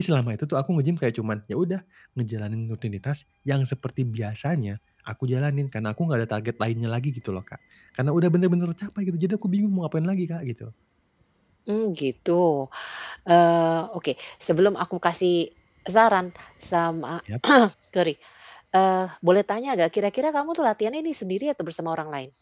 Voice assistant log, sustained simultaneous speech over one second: none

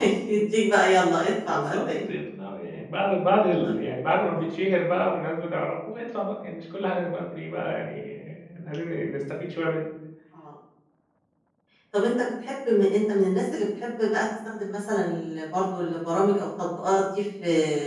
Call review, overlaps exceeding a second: none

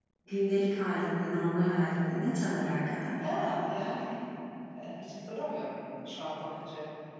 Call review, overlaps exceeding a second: none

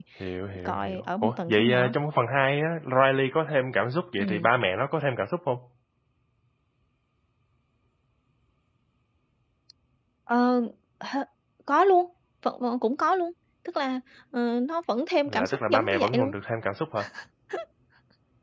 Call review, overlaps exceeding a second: present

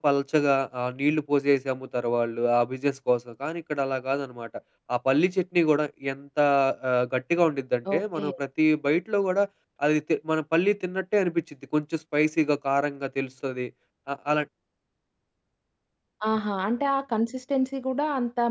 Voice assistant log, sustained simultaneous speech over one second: none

